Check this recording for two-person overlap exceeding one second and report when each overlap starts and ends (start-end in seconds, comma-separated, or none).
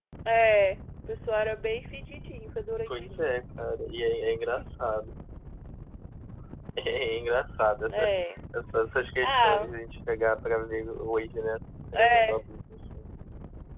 none